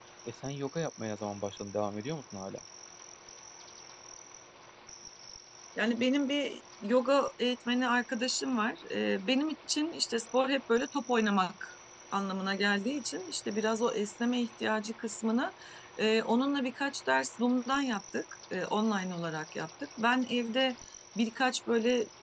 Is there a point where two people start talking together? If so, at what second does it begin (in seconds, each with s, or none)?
none